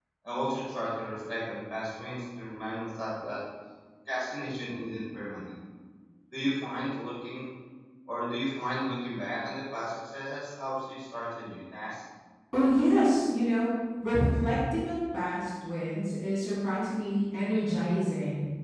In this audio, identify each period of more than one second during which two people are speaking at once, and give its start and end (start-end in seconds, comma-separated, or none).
none